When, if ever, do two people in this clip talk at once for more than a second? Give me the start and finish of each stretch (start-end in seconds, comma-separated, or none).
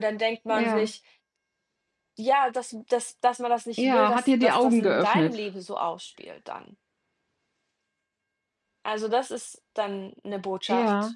3.8-5.3